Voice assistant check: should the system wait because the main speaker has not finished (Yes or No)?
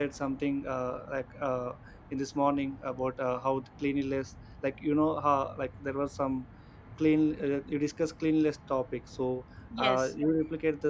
Yes